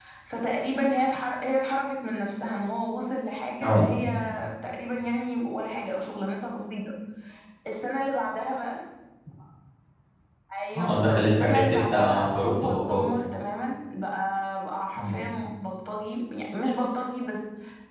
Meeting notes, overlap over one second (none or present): present